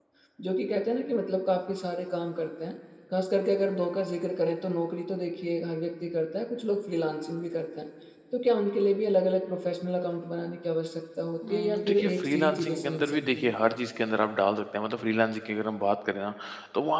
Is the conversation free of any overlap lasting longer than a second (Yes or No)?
No